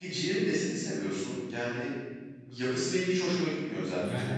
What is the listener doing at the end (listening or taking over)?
taking over